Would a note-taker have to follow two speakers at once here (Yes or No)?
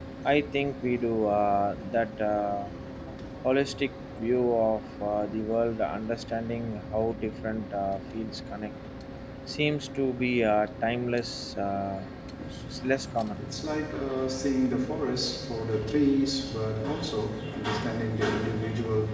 No